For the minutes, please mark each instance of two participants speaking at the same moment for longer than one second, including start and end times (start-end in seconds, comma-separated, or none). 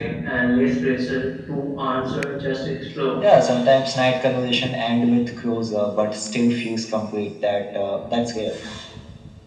none